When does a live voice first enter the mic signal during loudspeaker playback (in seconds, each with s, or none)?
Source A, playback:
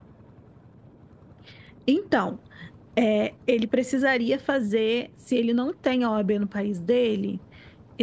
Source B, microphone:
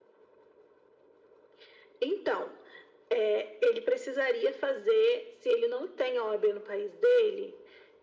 none